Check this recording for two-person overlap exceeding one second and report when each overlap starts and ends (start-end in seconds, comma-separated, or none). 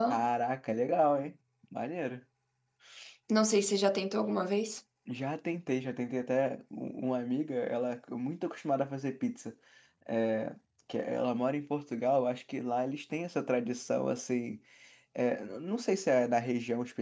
none